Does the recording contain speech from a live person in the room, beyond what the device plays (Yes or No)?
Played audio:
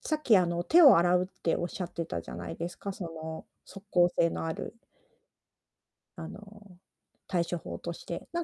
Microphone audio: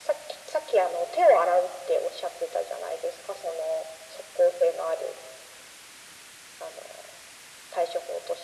No